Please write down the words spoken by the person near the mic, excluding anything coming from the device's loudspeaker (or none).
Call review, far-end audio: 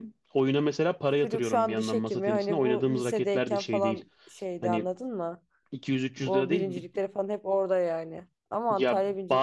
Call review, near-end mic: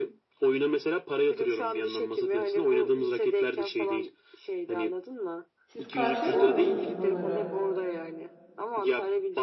Siz karşılamıyor musunuz bunları?